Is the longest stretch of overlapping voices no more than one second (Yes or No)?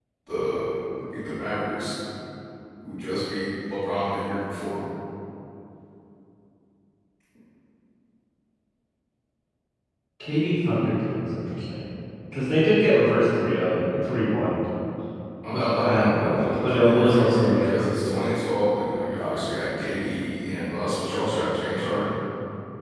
No